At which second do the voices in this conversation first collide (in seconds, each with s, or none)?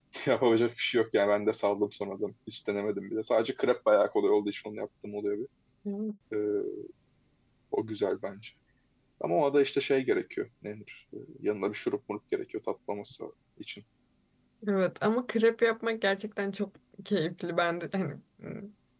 none